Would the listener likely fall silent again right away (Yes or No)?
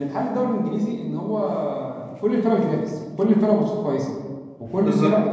Yes